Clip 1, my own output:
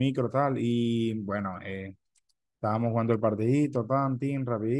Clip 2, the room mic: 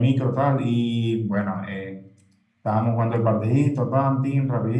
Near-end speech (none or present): none